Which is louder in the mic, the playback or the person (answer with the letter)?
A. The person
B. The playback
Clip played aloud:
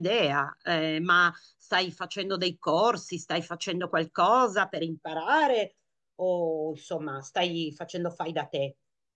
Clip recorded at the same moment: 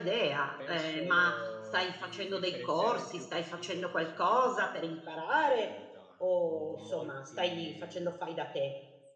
B